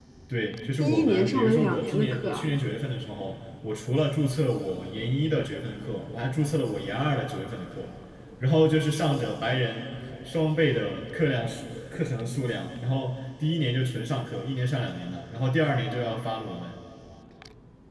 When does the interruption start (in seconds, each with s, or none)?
0.8 s